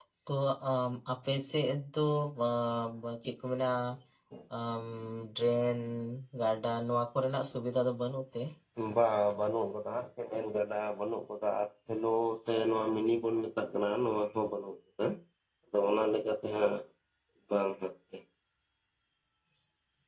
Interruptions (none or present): none